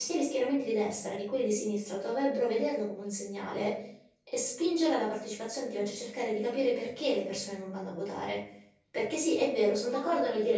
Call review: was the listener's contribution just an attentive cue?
Yes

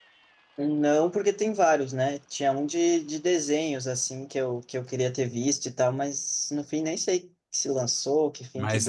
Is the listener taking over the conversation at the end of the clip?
Yes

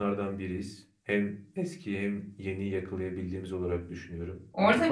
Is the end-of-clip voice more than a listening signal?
Yes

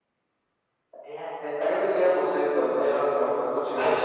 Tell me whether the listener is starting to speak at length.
Yes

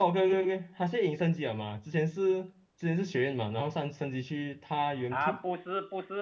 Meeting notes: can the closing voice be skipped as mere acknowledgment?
No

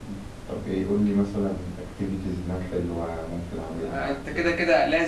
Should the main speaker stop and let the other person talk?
Yes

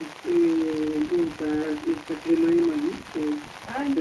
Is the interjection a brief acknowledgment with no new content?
No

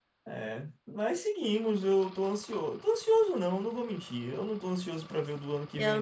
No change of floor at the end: No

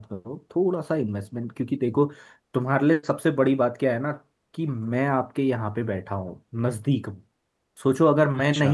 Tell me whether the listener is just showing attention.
Yes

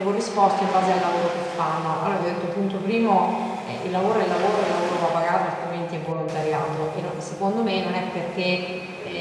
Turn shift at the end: No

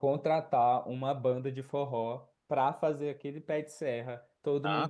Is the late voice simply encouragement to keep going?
No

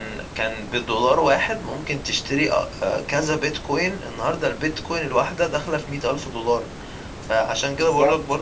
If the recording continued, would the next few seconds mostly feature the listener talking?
No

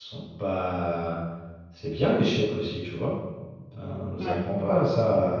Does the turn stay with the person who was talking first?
Yes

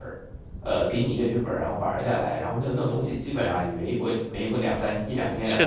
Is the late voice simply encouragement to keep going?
No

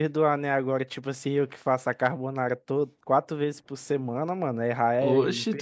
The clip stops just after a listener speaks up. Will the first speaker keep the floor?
No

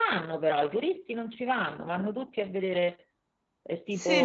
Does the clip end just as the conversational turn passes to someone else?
Yes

